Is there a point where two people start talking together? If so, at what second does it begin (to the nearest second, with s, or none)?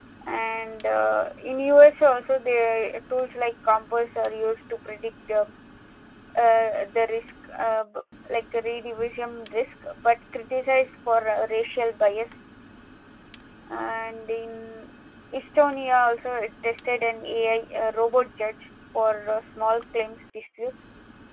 none